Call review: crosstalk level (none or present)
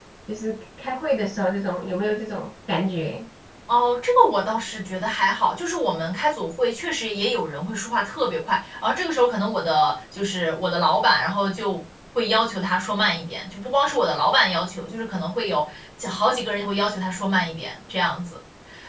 none